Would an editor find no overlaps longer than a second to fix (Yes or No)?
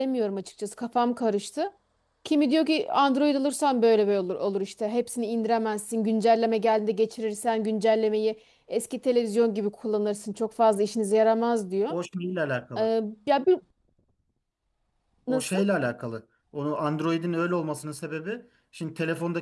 Yes